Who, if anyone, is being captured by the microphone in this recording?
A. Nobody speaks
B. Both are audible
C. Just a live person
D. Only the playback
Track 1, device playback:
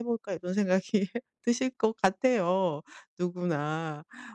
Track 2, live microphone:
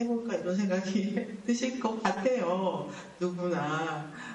D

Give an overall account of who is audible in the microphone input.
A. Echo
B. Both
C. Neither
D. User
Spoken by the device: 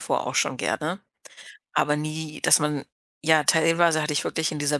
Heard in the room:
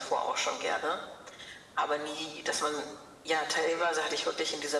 A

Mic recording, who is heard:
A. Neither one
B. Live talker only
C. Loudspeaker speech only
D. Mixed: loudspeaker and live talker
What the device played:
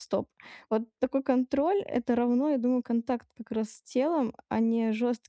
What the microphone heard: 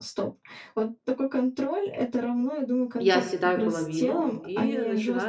D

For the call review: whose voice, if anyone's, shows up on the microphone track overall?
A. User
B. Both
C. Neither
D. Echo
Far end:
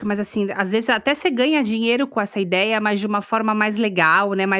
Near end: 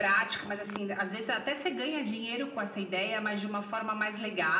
D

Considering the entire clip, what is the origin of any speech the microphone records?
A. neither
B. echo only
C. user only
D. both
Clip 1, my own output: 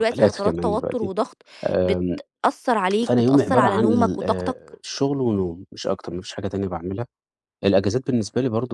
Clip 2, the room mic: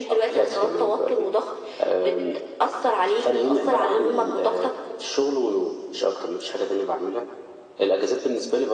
B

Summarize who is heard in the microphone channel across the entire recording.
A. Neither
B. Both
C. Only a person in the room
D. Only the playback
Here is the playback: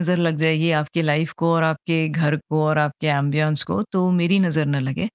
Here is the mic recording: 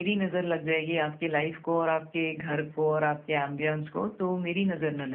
D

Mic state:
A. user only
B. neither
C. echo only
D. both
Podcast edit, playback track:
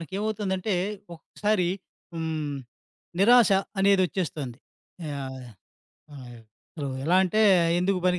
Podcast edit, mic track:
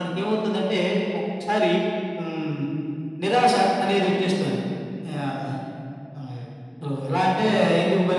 C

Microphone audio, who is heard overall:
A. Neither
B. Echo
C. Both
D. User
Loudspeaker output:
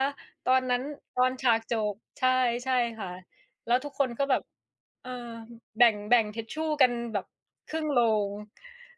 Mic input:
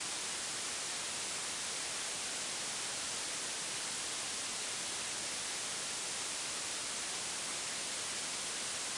A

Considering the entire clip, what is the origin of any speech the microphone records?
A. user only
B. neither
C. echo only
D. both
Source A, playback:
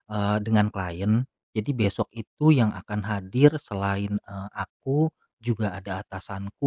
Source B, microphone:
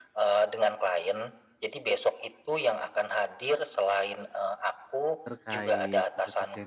D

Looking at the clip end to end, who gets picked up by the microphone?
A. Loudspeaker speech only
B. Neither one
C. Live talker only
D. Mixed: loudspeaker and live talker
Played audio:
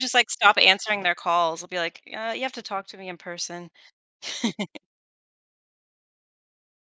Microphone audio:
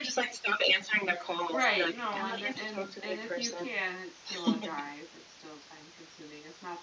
D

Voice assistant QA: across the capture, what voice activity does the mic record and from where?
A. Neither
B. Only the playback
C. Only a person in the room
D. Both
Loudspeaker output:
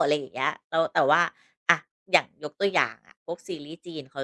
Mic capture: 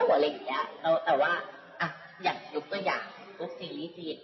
B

